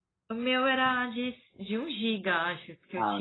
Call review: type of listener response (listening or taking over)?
taking over